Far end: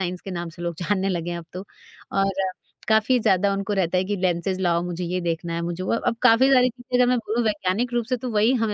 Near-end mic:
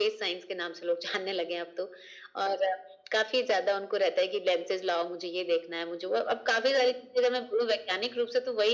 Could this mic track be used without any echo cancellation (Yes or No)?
No